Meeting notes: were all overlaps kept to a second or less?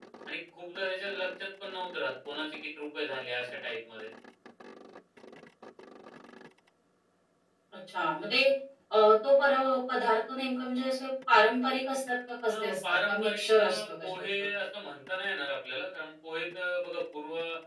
No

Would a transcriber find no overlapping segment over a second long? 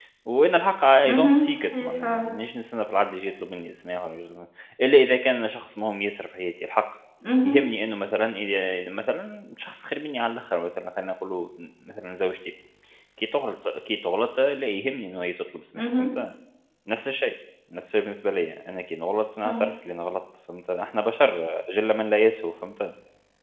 No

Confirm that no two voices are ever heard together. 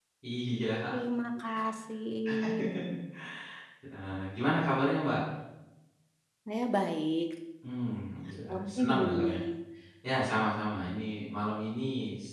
No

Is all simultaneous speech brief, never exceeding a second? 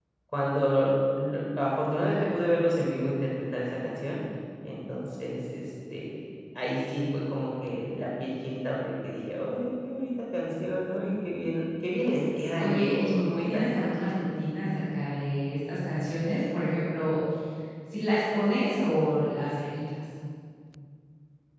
No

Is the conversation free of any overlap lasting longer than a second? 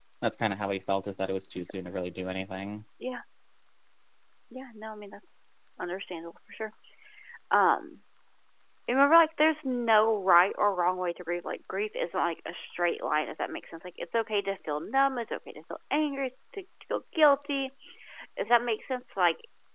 Yes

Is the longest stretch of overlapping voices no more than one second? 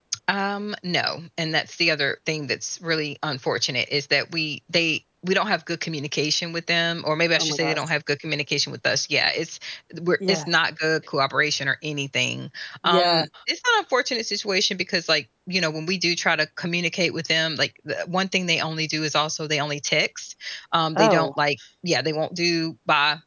Yes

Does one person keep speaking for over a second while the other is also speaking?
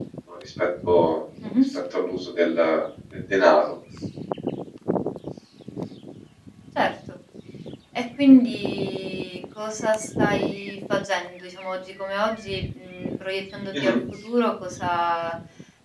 No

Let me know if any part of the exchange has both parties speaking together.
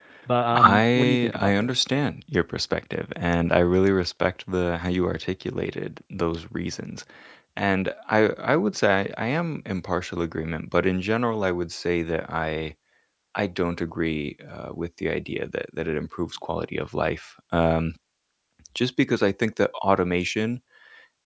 Yes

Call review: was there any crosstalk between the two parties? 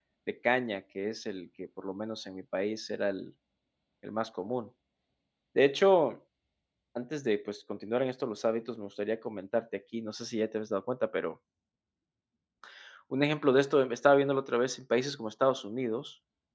No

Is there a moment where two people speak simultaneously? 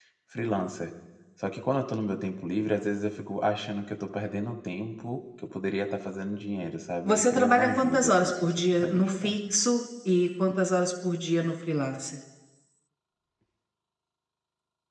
Yes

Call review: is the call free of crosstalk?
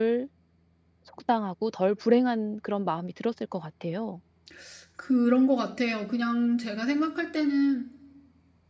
Yes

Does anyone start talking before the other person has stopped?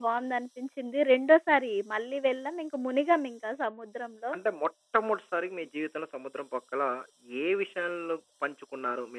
No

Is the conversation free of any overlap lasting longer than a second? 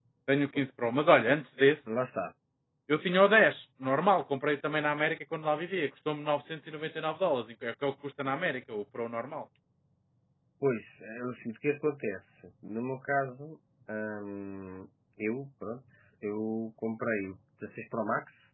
Yes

